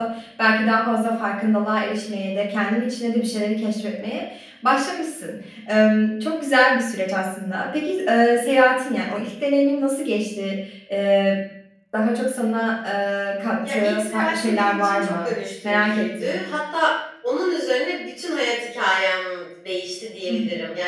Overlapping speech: Yes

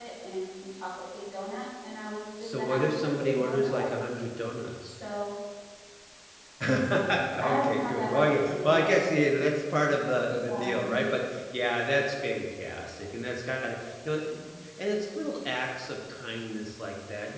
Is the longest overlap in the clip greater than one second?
Yes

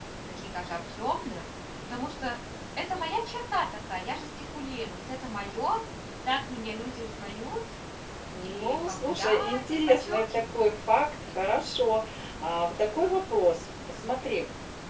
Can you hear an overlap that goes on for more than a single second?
Yes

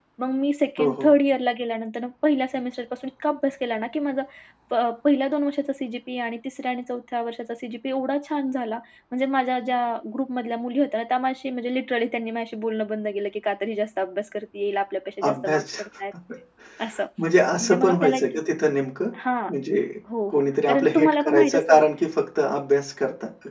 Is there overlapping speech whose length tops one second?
Yes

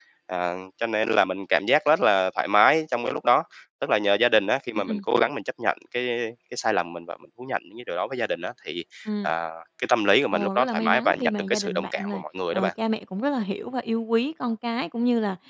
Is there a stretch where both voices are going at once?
Yes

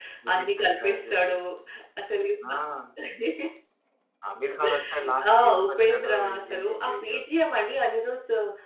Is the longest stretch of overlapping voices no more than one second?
No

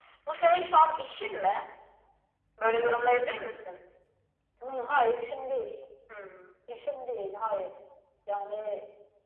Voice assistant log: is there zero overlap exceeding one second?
Yes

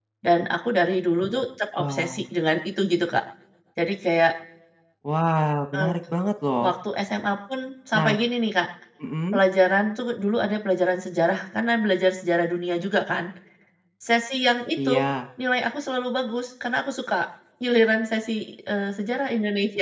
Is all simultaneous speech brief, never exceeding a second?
Yes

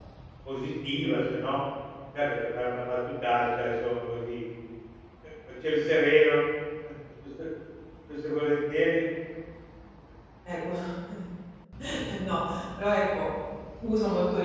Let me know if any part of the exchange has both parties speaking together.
No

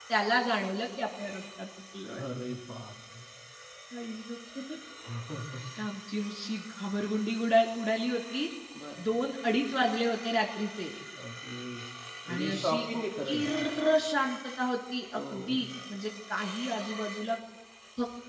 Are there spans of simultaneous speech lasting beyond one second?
No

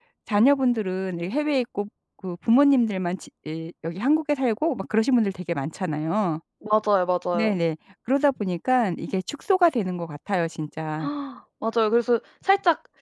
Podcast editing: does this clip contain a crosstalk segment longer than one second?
No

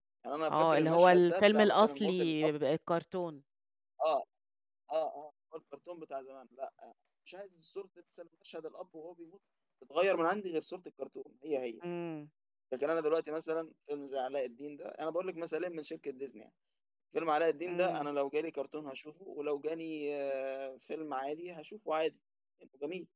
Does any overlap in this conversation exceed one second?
Yes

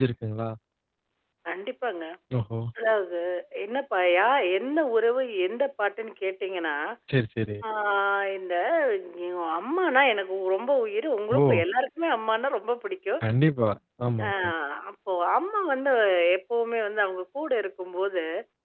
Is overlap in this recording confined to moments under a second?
Yes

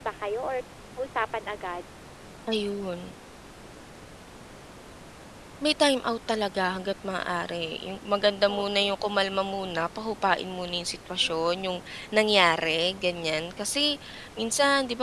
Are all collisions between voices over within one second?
Yes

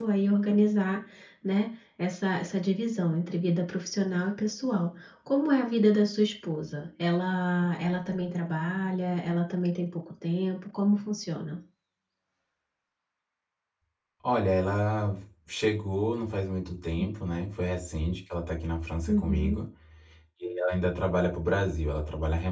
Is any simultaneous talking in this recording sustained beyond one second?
No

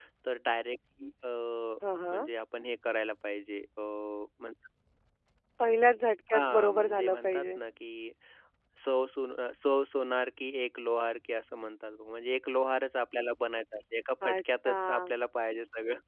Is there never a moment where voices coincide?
No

